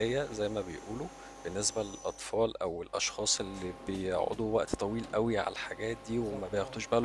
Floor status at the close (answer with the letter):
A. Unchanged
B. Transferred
A